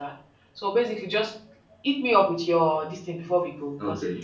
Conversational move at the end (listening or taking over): taking over